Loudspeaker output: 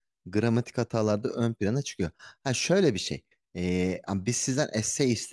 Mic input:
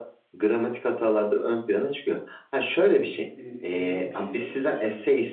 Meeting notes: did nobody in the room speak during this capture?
No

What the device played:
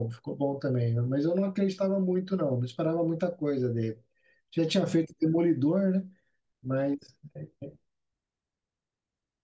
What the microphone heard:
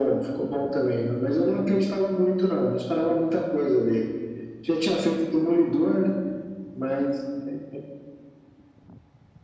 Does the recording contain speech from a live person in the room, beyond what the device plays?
No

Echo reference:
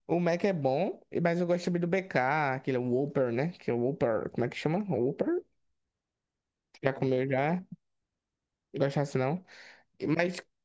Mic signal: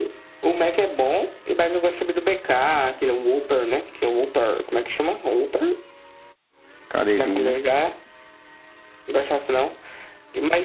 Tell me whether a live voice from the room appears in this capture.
Yes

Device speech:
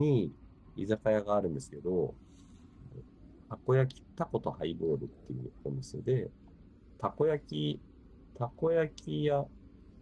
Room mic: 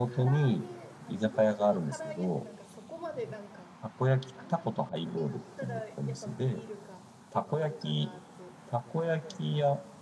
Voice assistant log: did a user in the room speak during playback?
Yes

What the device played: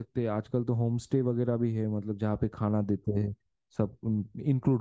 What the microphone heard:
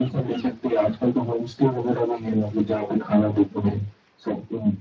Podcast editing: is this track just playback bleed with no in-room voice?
Yes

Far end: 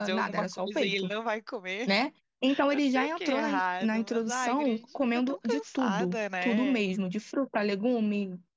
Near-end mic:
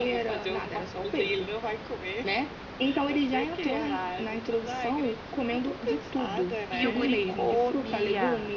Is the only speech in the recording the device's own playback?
No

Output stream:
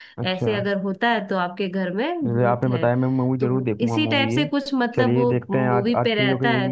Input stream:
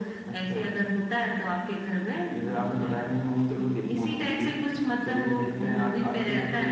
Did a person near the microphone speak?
No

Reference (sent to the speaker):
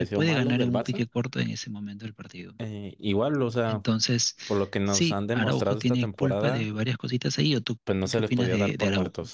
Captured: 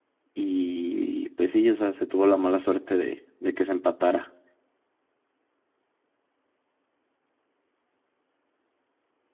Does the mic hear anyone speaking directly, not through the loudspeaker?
Yes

